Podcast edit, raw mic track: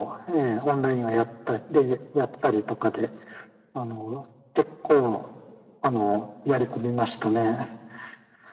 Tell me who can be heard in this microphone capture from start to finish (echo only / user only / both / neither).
echo only